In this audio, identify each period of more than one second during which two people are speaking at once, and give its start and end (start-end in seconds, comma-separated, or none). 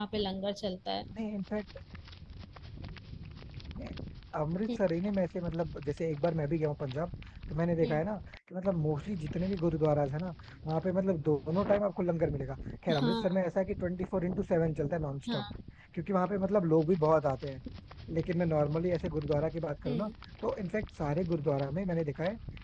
none